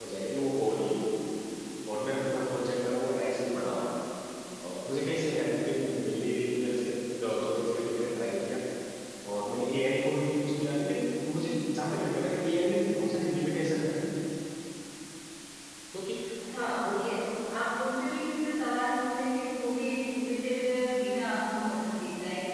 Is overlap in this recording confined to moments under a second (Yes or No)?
Yes